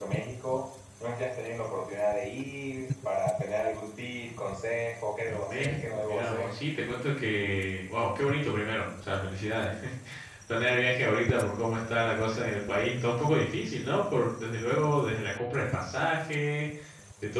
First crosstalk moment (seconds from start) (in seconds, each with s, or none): 5.2 s